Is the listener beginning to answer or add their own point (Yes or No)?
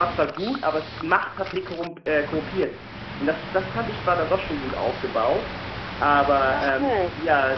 Yes